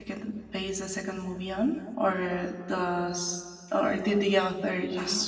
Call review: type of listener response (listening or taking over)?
taking over